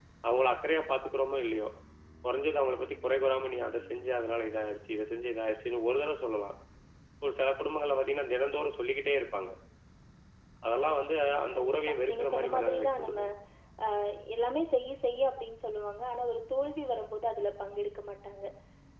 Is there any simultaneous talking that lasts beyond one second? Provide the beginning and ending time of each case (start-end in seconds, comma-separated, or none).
11.5-13.2